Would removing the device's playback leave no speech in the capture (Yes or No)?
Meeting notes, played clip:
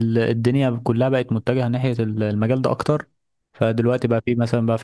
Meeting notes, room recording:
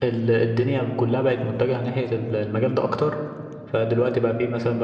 Yes